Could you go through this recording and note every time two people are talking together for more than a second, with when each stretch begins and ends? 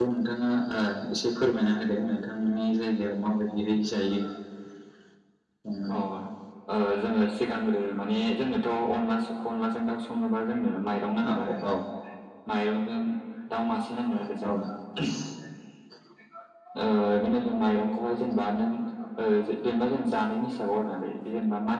none

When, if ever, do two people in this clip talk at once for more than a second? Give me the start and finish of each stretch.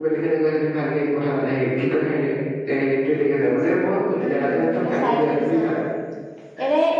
4.2-5.7

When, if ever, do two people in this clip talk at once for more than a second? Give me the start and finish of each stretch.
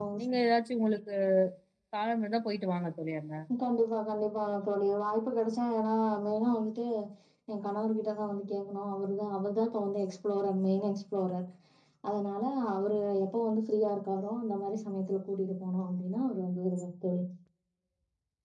none

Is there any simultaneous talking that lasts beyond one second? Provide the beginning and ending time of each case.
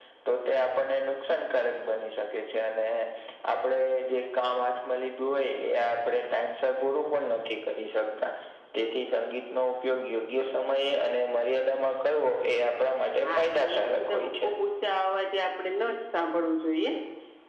13.3-14.5

